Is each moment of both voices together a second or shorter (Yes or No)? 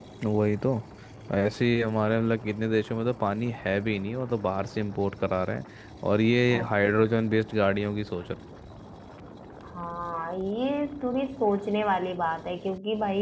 Yes